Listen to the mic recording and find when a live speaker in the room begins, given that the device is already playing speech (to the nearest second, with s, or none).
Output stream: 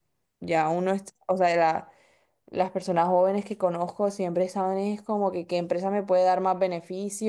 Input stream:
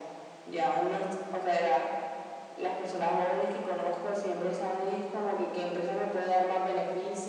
none